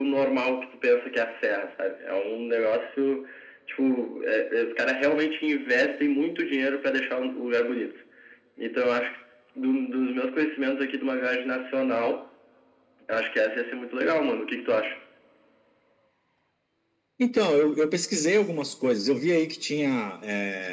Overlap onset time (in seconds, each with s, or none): none